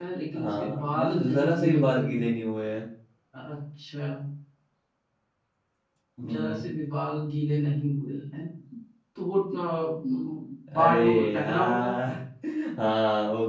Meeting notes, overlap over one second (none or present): present